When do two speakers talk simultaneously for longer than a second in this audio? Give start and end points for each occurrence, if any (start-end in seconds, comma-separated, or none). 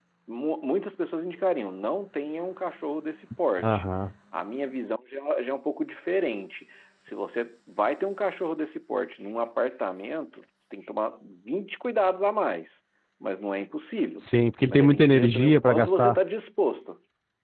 14.7-16.2